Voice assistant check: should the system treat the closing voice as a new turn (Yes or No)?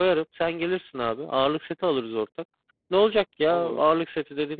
No